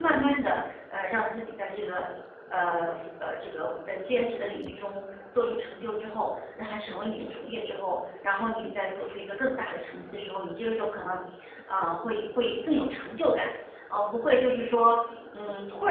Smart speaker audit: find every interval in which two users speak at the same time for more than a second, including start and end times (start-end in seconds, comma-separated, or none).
none